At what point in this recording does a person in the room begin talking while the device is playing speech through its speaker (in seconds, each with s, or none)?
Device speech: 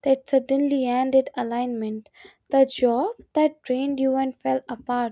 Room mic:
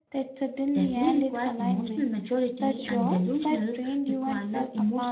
0.7 s